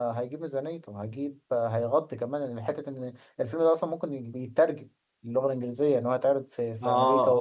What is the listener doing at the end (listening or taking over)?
taking over